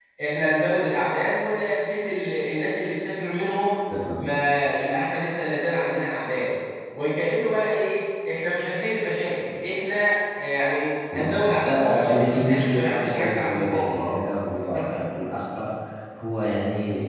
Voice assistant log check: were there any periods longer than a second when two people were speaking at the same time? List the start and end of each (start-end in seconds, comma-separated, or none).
11.1-14.1